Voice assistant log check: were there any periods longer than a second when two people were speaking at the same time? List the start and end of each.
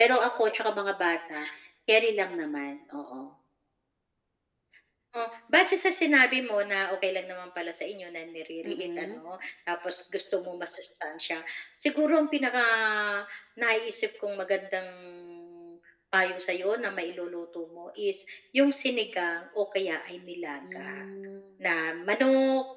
none

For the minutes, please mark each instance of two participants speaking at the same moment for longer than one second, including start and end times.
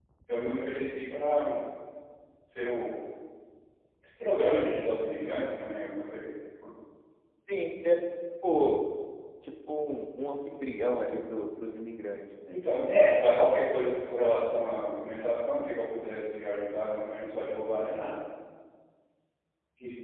none

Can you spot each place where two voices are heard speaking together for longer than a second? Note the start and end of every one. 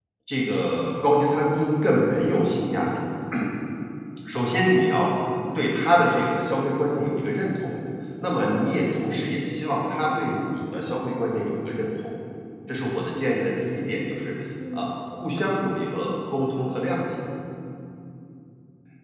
none

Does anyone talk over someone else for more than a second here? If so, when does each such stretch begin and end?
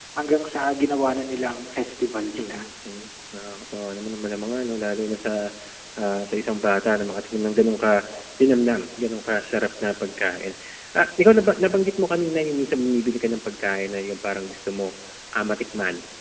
none

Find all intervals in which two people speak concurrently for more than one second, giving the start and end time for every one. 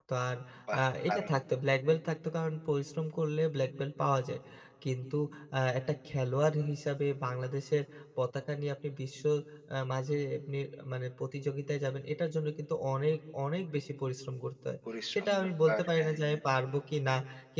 15.1-16.4

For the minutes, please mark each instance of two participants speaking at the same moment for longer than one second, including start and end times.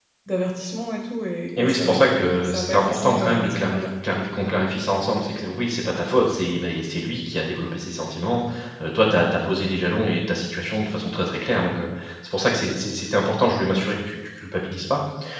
1.6-3.8

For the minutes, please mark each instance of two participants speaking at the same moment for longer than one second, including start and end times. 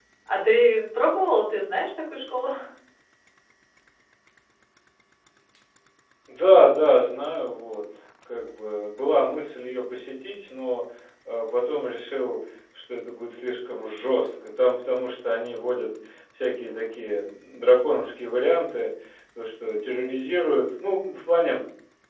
none

